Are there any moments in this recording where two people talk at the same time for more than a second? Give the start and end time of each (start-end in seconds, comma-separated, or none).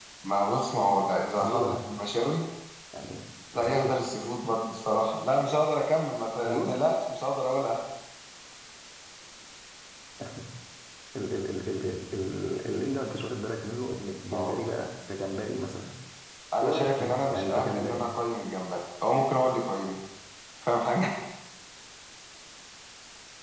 16.6-18.0